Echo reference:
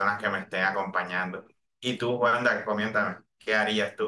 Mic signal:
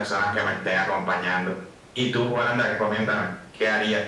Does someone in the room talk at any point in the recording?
No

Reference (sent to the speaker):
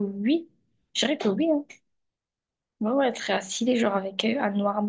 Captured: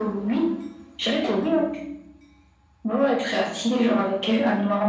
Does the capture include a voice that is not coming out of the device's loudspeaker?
No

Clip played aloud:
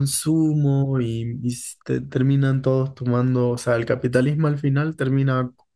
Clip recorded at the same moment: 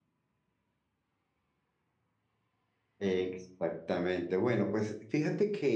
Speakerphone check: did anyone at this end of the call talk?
Yes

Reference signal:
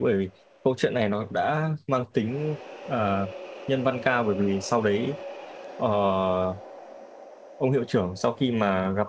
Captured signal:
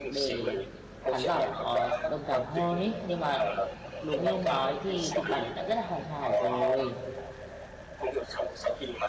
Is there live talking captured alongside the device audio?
Yes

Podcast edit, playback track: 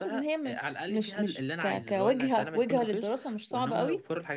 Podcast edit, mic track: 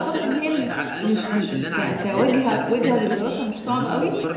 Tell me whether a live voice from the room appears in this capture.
Yes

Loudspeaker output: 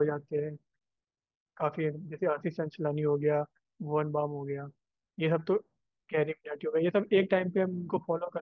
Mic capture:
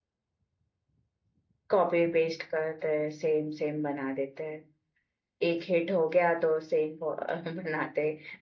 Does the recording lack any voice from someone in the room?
No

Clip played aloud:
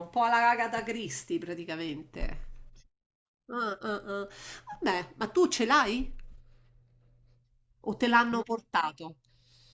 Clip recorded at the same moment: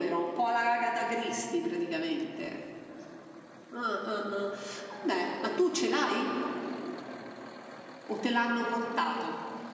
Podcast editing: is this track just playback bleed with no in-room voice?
Yes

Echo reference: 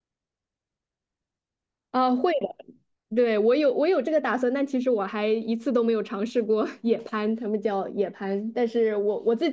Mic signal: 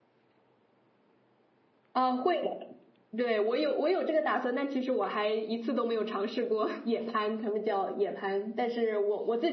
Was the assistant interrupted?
No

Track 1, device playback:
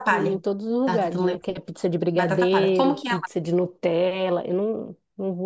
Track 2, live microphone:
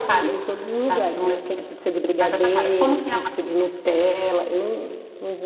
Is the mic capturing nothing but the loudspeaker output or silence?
Yes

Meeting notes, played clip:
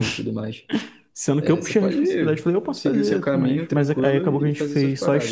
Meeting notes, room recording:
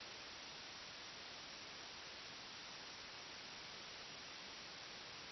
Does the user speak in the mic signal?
No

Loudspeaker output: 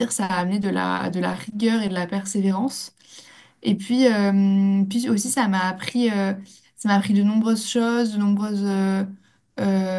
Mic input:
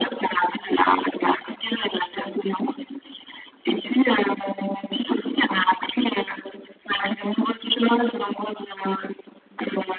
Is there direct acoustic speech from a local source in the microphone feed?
No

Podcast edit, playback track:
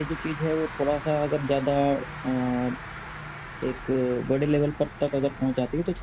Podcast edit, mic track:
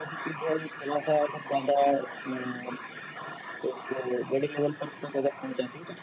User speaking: No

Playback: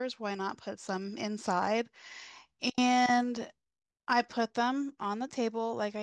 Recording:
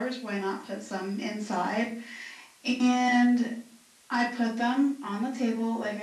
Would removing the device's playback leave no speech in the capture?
Yes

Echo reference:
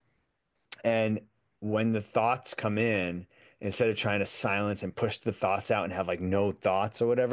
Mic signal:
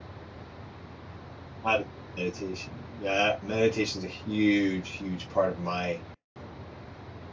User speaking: Yes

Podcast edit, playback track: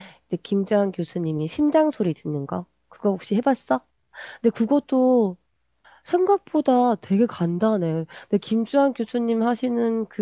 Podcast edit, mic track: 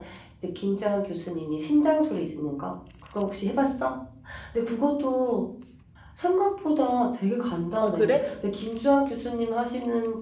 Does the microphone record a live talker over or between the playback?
Yes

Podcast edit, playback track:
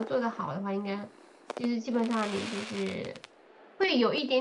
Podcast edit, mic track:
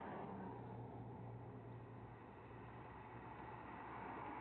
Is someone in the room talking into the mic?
No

